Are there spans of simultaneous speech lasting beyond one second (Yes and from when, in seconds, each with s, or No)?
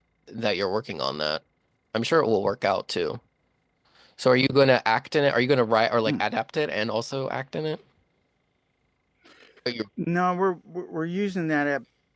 No